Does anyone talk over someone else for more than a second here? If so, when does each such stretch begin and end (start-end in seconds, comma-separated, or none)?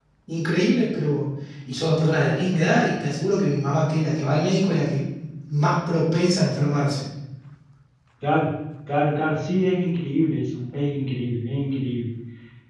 none